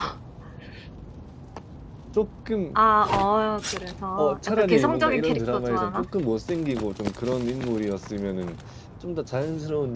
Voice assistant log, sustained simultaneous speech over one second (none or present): present